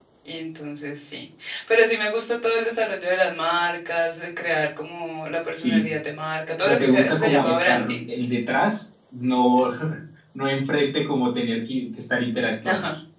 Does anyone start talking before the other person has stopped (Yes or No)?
Yes